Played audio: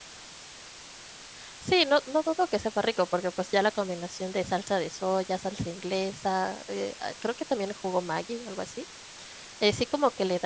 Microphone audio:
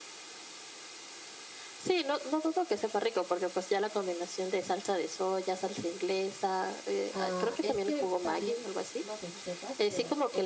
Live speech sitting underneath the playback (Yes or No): Yes